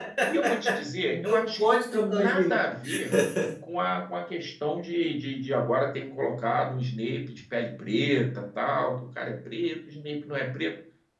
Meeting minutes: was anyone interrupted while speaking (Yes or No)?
Yes